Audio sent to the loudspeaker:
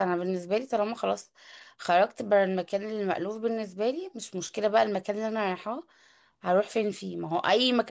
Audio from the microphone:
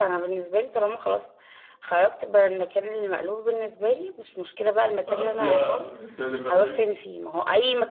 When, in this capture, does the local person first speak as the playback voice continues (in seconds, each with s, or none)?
5.1 s